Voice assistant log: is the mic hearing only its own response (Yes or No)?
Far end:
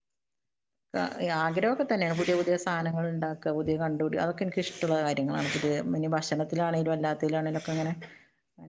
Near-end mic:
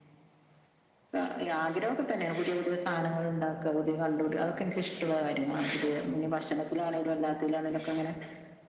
Yes